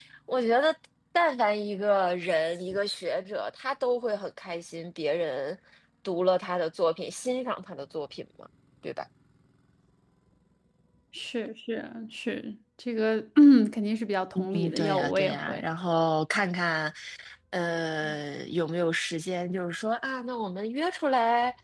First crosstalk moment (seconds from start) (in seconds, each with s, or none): 14.3 s